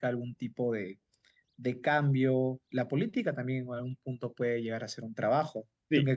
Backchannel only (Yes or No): No